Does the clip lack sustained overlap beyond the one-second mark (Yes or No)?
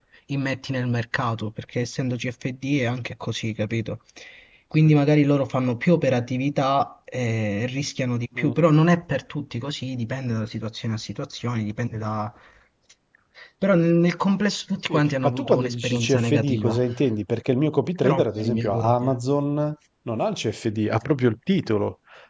No